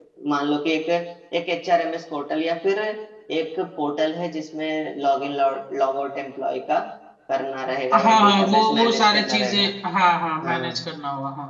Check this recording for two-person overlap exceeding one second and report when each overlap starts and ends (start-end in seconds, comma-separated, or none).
7.9-9.6